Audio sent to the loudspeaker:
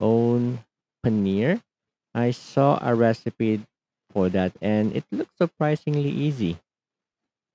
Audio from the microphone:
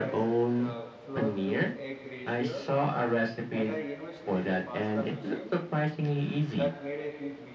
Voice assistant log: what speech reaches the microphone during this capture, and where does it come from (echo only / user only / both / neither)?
both